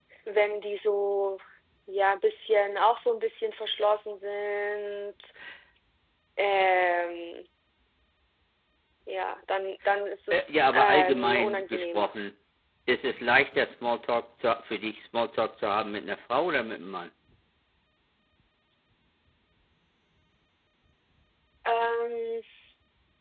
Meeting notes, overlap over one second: present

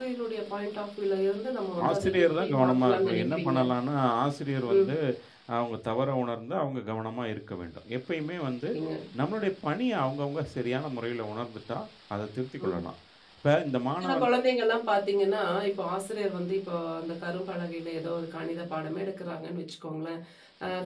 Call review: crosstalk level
present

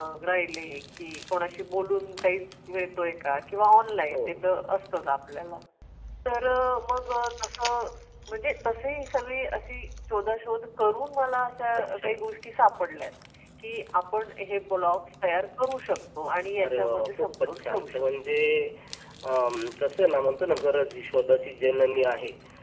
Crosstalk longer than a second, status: present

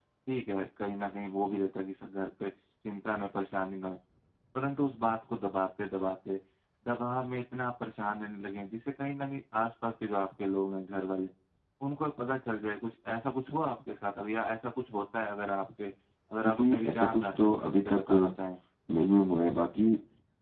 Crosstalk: present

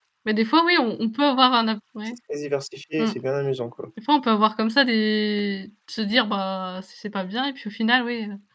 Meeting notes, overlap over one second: none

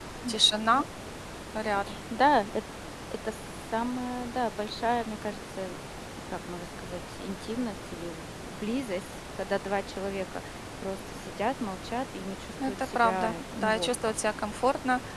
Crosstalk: present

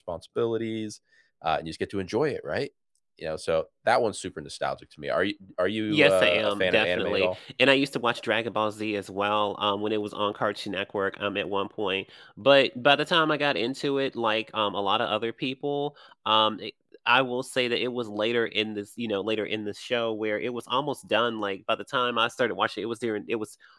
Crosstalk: present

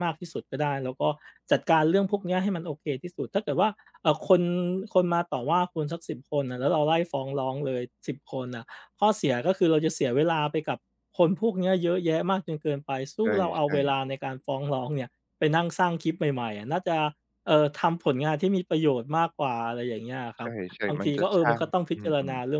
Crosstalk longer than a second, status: present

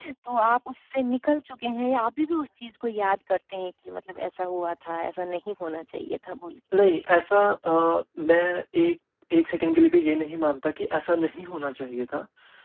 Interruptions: none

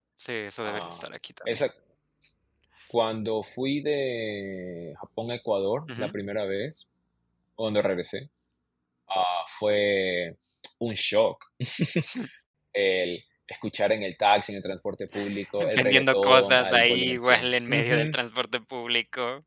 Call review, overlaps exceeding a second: present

